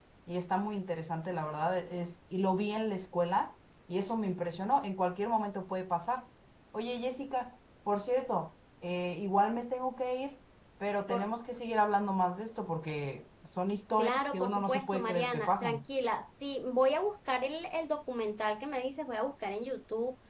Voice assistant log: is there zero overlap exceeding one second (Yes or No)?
No